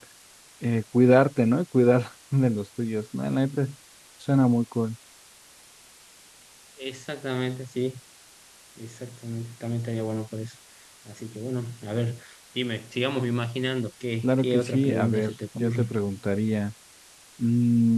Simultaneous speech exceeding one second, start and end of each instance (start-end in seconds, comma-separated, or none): 14.2-15.9